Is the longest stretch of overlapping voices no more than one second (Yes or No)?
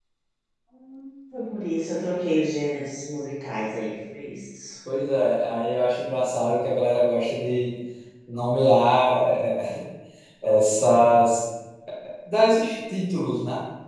Yes